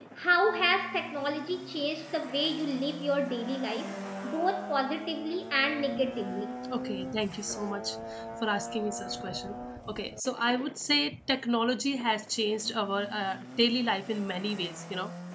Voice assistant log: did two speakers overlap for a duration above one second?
No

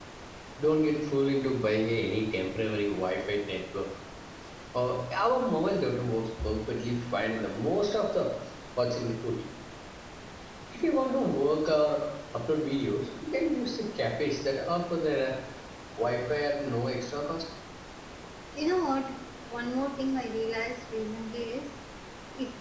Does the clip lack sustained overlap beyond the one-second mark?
Yes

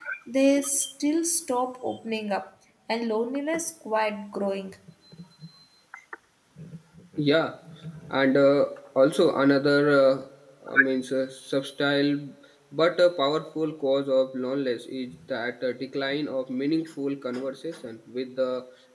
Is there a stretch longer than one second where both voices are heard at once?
No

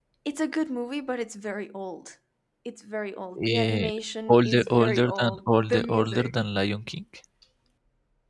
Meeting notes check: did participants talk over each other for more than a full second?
Yes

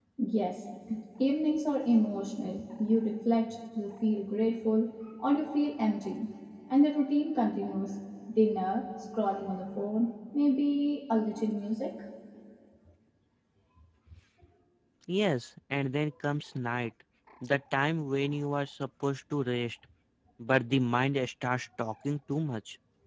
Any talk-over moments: No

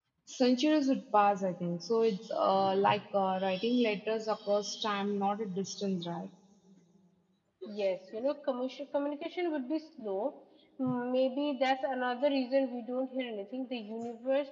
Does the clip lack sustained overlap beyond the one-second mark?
Yes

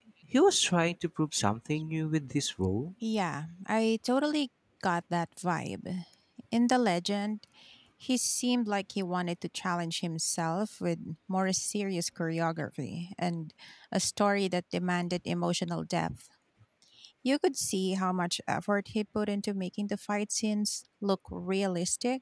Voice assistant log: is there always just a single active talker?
Yes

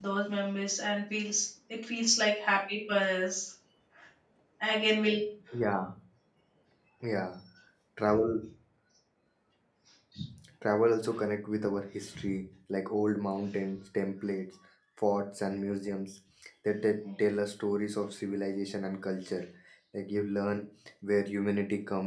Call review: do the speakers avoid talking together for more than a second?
Yes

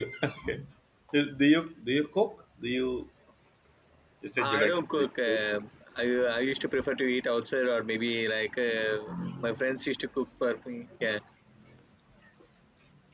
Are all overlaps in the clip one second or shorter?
No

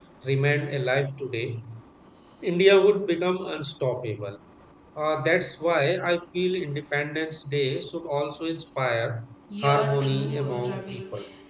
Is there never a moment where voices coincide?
No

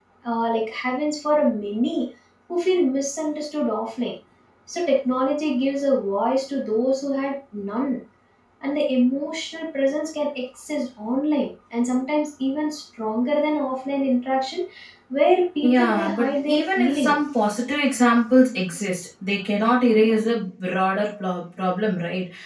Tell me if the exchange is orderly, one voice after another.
No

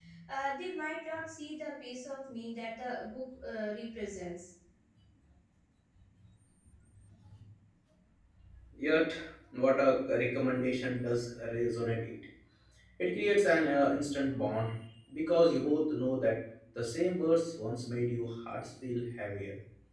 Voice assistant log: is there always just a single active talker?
Yes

